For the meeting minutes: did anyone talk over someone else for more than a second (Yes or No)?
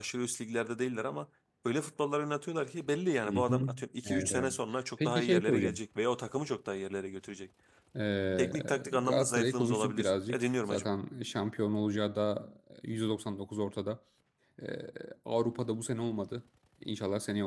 Yes